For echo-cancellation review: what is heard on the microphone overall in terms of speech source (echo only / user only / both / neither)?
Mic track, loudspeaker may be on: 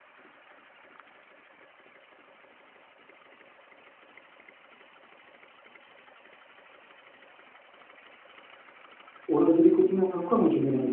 user only